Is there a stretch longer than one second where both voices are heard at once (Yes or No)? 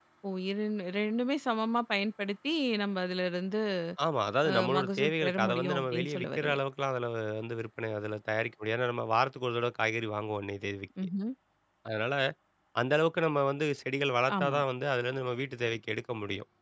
Yes